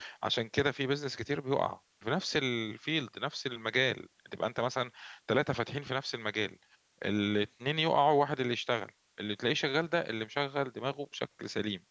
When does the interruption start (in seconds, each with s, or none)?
none